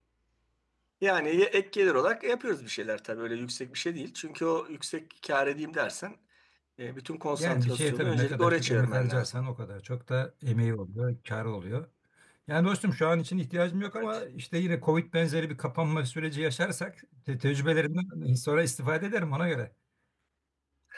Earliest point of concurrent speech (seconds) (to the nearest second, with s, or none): 7 s